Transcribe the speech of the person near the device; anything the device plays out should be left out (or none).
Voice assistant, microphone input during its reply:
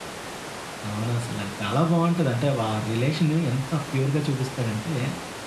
అవునసల. చాలా బావుంటది. అంటే వా రిలేషన్ ఎంత ప్యూర్‌గా చూపిస్తాడంటే,